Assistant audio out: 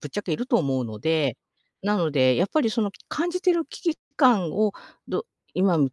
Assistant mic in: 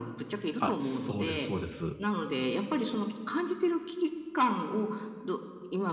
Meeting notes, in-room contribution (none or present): present